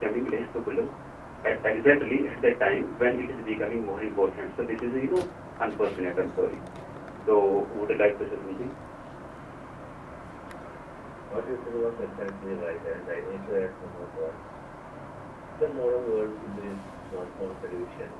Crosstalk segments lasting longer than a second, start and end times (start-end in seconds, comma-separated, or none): none